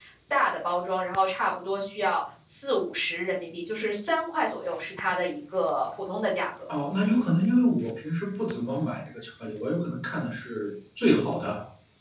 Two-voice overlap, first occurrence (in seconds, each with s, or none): none